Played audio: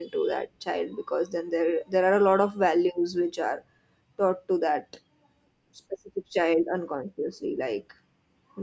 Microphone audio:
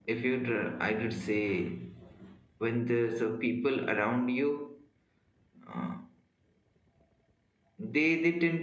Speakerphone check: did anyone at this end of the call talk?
Yes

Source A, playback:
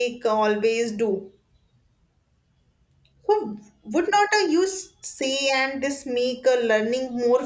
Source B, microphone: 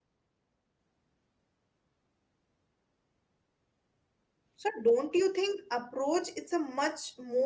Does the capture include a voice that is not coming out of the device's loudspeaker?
Yes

